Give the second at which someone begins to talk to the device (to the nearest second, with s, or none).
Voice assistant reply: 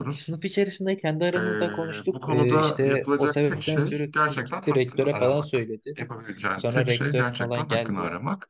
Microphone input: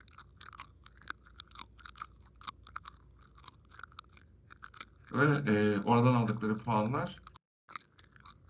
5 s